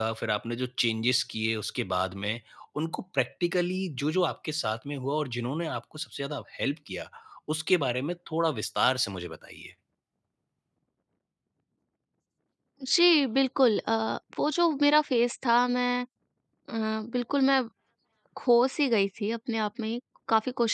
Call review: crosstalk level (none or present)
none